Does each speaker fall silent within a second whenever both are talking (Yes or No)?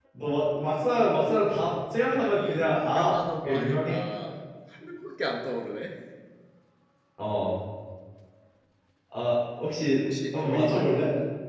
No